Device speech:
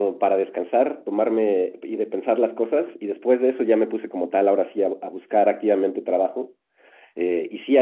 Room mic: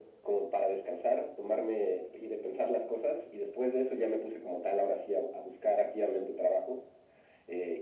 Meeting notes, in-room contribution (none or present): none